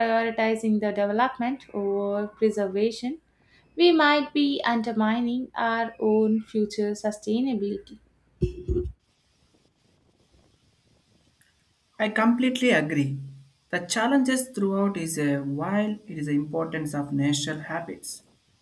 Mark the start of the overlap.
none

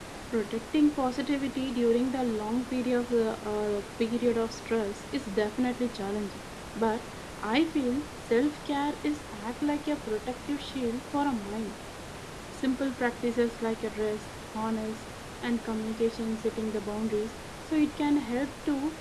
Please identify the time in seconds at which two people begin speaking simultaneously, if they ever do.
none

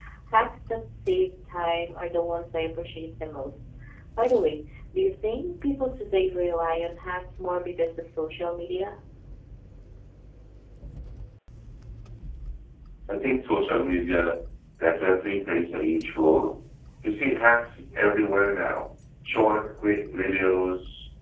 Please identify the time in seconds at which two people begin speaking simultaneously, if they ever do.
none

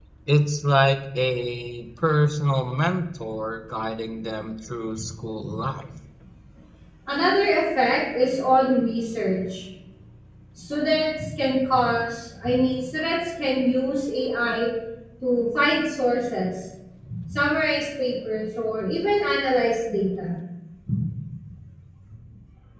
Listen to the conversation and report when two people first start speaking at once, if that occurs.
none

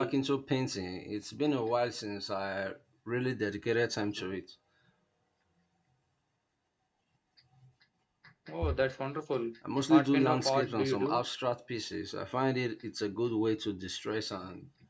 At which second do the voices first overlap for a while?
10 s

